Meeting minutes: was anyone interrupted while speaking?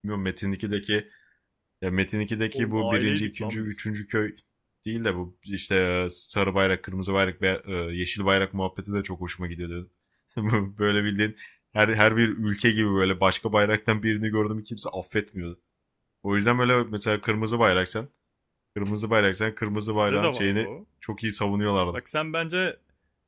Yes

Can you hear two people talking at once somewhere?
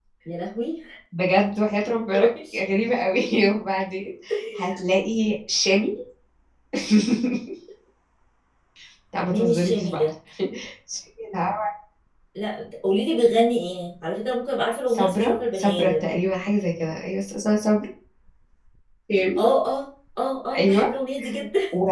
Yes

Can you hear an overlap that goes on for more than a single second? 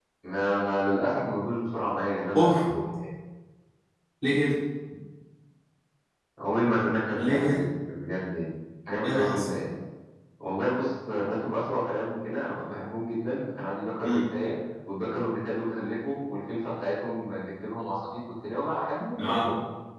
No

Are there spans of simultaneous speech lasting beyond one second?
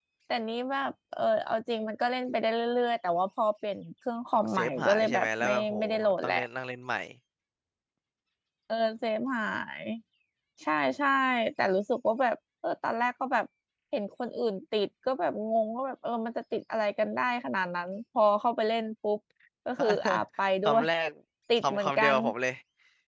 Yes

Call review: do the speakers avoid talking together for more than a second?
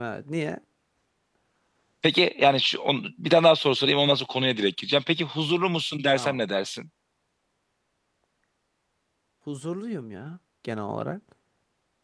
Yes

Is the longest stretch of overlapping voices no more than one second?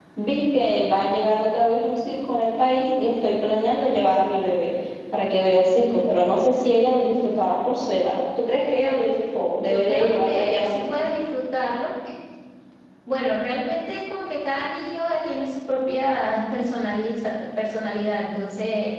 No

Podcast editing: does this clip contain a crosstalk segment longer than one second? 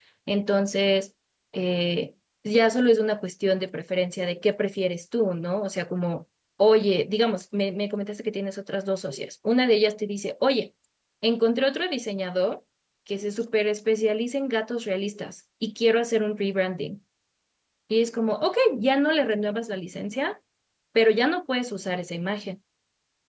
No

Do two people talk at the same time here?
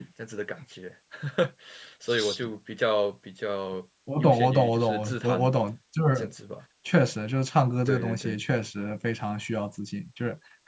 Yes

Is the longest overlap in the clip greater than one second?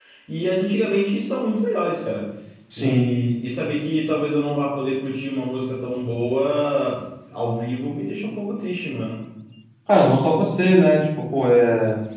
No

